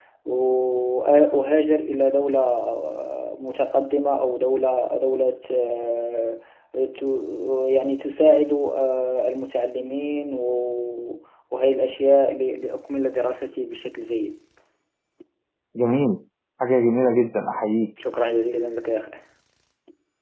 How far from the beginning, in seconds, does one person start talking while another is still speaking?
none

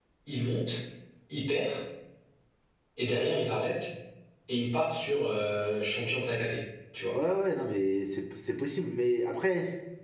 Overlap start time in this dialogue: none

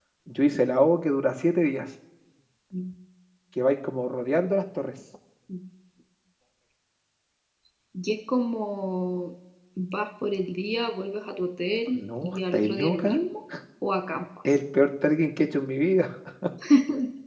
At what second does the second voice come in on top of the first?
11.9 s

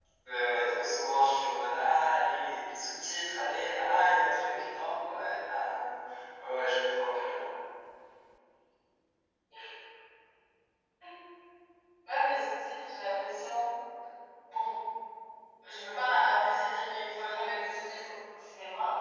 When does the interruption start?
none

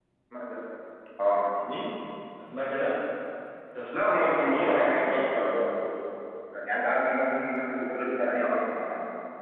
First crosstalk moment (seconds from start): 3.9 s

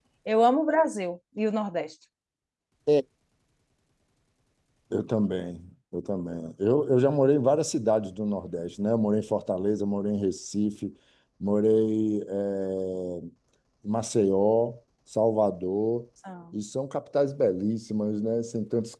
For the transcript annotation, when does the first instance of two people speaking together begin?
none

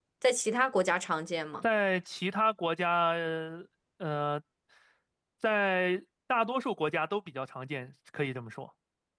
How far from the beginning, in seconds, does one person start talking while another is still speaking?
none

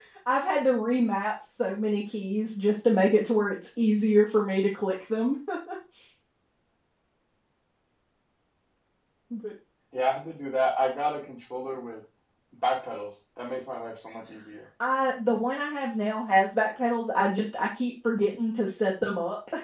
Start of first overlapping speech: none

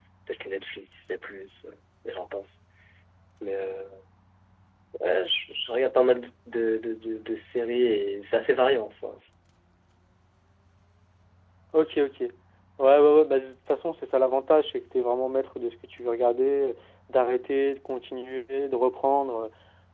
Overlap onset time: none

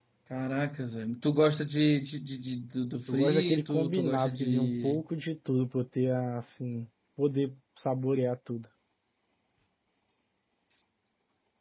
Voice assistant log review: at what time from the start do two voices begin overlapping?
3.1 s

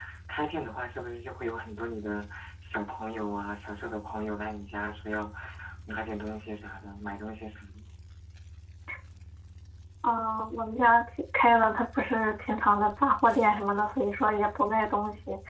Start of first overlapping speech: none

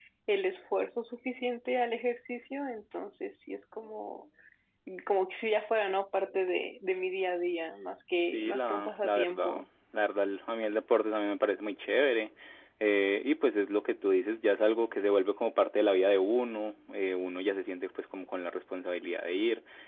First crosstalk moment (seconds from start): 8.3 s

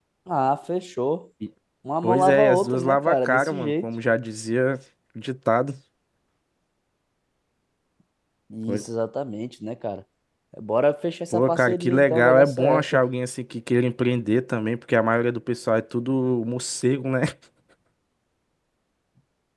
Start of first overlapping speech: 2.0 s

